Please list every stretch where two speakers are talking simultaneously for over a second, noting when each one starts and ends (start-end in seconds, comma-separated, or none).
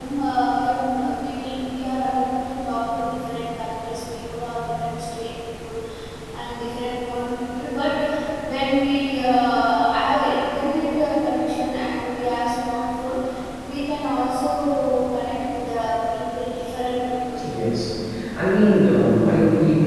none